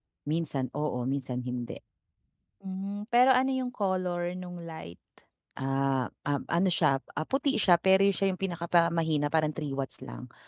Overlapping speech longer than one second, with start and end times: none

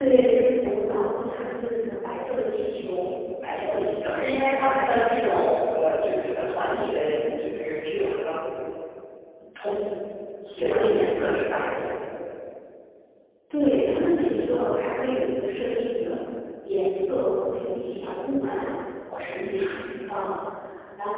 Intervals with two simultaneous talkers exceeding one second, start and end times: none

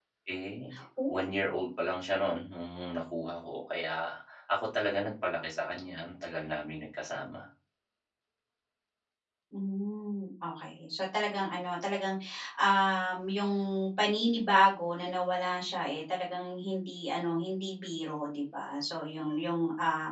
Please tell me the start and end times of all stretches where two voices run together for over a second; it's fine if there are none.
none

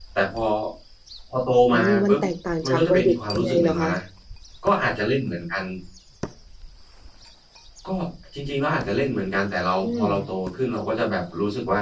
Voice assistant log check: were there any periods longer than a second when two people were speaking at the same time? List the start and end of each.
2.6-4.0

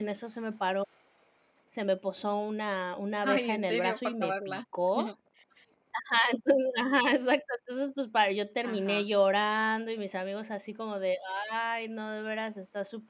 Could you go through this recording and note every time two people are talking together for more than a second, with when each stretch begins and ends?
3.2-4.6

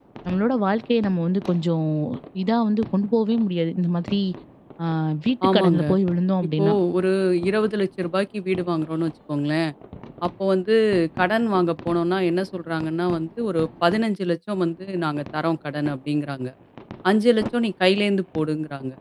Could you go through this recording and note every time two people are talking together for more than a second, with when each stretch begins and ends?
none

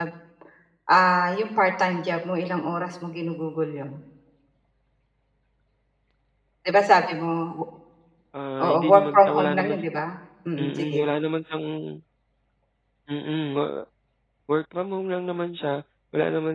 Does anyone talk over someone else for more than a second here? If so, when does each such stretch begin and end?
8.6-9.8

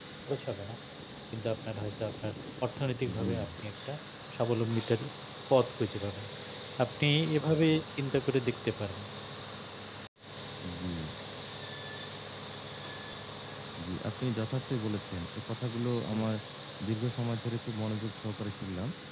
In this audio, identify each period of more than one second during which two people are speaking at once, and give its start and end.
none

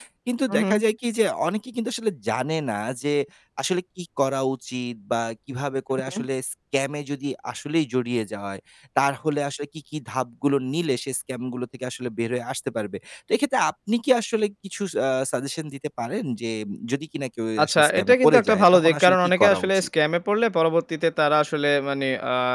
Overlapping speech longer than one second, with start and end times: 17.6-19.9

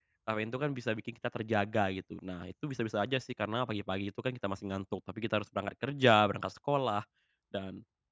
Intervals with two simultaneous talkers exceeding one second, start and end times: none

